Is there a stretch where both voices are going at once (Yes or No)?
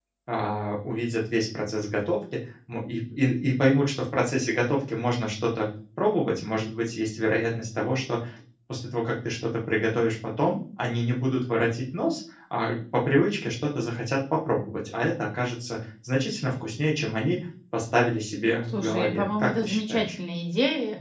Yes